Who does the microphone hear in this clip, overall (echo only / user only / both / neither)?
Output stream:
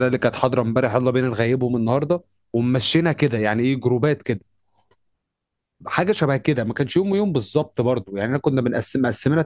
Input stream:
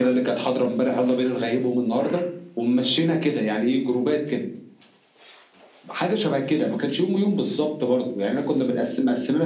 echo only